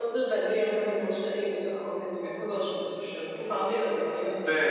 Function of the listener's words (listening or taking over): taking over